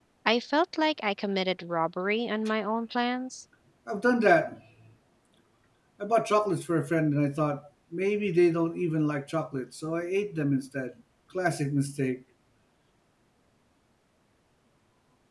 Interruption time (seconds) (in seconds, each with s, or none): none